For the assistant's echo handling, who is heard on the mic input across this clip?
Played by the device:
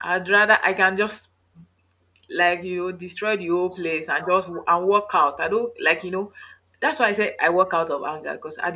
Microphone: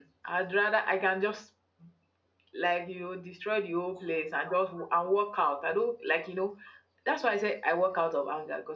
echo only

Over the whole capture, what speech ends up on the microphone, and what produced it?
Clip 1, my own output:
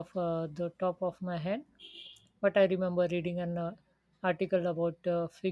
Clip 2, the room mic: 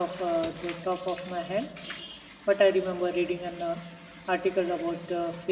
echo only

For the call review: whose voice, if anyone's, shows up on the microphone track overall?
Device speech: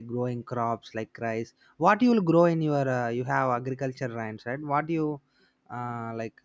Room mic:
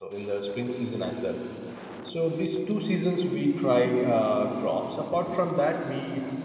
user only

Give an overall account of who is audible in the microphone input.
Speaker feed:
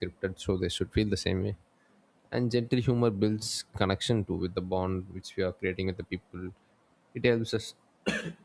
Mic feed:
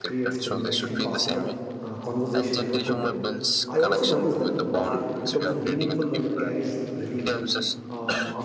both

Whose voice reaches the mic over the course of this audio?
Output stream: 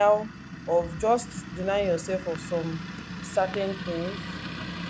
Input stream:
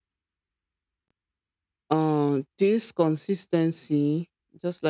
user only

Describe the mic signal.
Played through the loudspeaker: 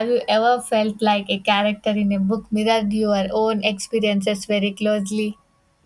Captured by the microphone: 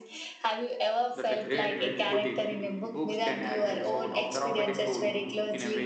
both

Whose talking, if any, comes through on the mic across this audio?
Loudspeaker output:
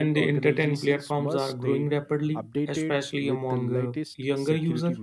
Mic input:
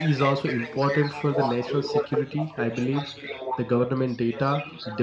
both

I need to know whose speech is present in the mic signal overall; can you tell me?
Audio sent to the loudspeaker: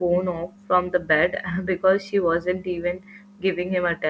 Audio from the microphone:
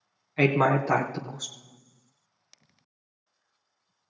user only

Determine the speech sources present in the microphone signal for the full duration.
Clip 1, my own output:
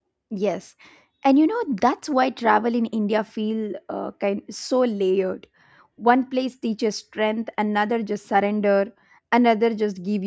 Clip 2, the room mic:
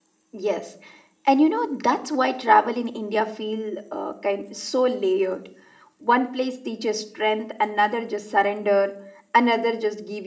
echo only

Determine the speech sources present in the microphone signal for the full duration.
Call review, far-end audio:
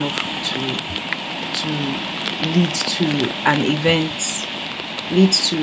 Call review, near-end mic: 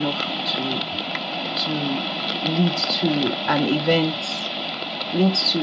echo only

